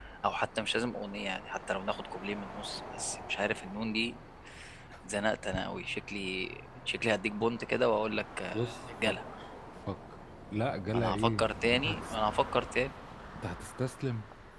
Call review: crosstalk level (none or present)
present